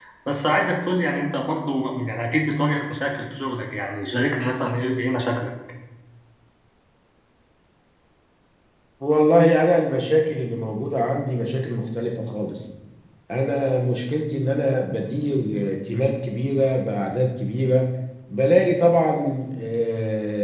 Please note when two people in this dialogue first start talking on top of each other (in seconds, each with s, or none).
none